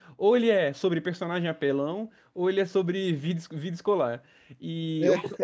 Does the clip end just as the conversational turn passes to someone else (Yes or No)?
No